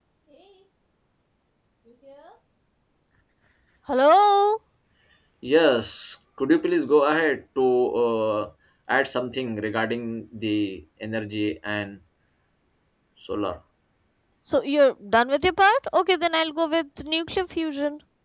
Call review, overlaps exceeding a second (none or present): none